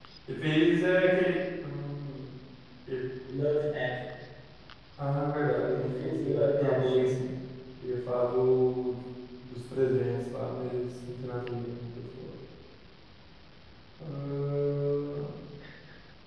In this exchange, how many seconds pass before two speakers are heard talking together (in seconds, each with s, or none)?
5.7 s